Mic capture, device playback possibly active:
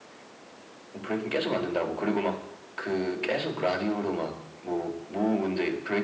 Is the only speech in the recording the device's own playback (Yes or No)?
Yes